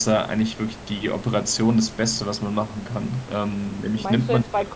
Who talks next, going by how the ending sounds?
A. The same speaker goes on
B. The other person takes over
B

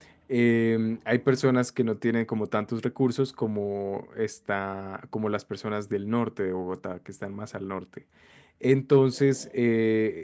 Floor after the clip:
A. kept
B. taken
A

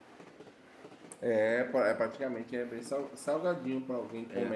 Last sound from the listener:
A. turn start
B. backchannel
B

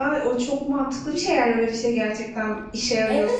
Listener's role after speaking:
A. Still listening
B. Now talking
B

